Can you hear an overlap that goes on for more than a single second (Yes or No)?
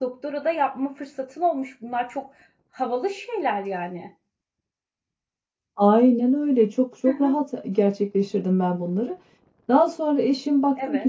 No